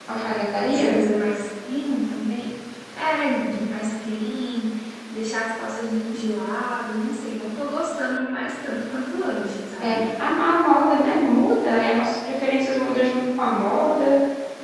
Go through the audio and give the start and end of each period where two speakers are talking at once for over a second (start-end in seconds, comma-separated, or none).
none